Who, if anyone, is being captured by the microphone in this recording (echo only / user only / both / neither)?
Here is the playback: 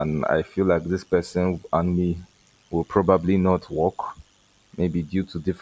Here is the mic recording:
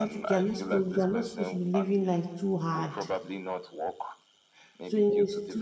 both